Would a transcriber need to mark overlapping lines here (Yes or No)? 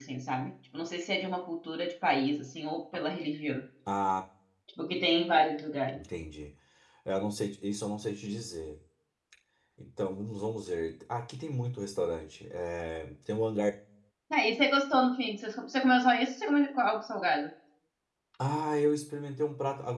No